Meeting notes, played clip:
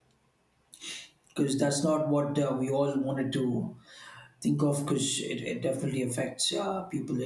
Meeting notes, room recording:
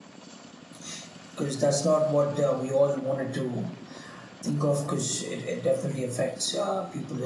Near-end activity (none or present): none